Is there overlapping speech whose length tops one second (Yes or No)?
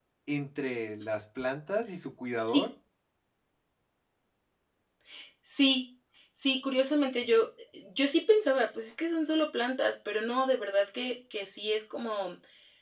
No